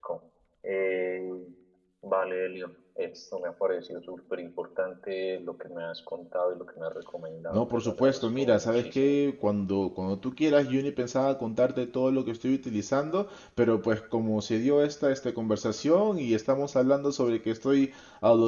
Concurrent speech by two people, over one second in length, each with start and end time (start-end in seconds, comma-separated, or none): 7.5-9.2